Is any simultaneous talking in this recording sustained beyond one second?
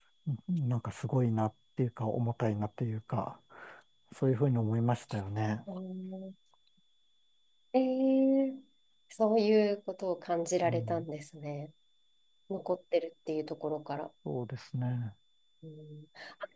No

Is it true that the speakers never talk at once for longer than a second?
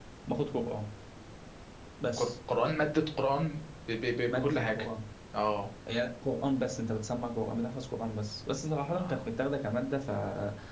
Yes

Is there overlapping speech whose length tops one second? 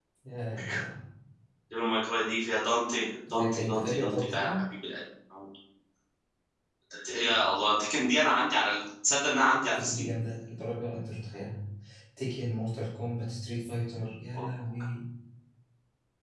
Yes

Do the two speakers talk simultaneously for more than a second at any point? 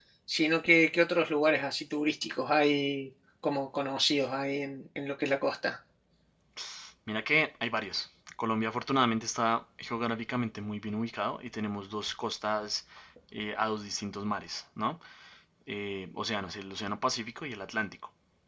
No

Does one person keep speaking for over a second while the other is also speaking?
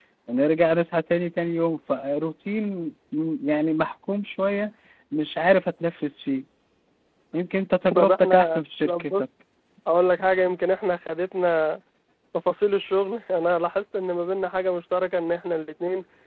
Yes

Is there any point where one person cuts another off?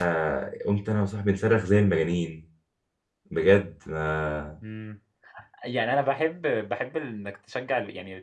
No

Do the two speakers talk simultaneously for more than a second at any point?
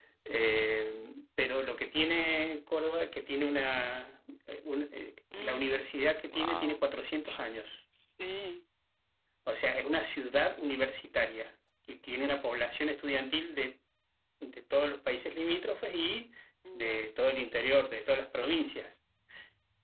No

